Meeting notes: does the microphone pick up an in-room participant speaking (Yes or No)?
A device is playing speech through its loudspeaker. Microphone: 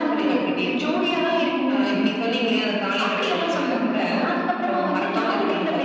No